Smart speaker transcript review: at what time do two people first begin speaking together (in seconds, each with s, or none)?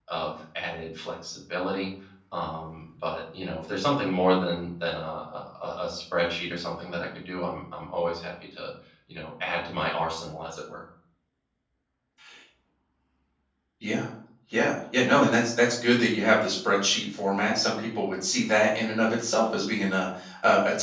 none